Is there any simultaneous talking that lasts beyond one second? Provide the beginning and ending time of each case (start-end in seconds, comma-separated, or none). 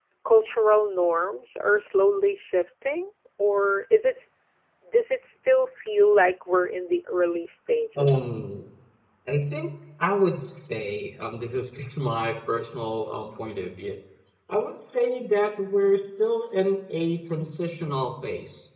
none